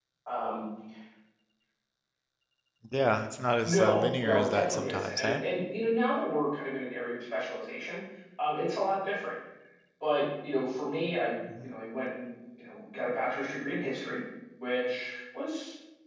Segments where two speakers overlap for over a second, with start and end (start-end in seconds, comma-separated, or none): 3.6-5.4